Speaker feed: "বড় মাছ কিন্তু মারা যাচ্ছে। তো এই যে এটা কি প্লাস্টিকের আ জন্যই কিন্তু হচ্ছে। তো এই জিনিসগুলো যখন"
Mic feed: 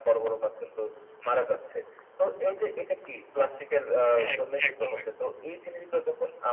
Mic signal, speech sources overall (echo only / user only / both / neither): both